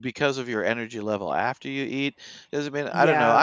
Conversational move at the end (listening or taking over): listening